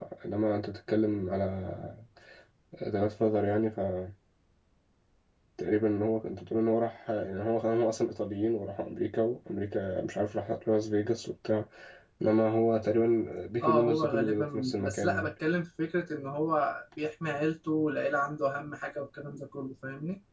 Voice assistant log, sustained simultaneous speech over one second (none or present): present